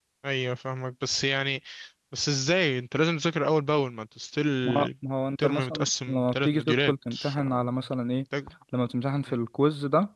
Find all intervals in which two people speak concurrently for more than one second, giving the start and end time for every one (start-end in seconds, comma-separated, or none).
5.4-7.4